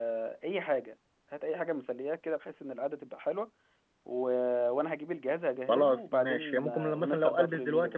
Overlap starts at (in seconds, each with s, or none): 5.7 s